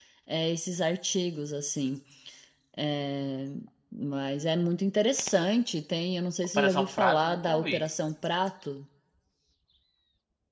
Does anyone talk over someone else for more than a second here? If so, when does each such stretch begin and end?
6.5-7.8

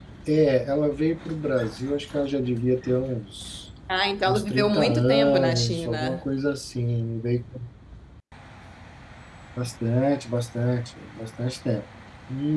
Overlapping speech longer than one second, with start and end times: 4.3-6.2

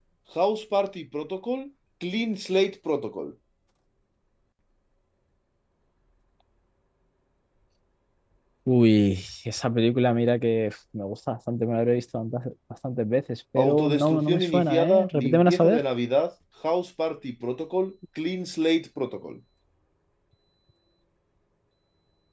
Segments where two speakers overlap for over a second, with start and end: 13.6-15.8

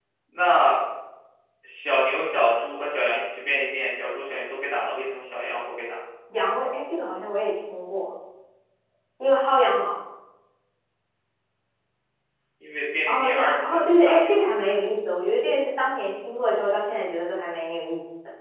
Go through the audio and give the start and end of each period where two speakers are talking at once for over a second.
13.1-14.3

